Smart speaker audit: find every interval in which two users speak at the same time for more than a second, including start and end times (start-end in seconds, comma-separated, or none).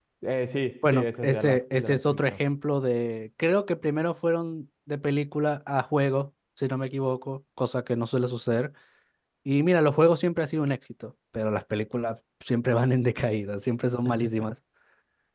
0.9-2.4